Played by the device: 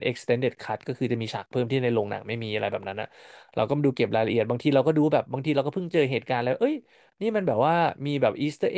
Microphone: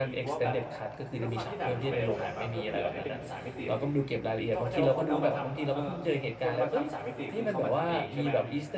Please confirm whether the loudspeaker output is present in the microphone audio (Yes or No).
Yes